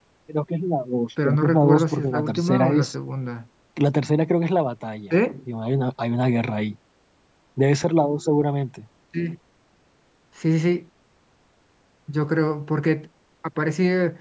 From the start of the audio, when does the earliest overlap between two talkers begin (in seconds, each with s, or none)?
1.2 s